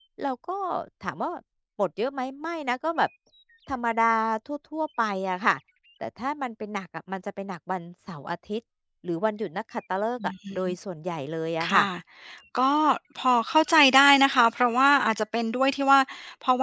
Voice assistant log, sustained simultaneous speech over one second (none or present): none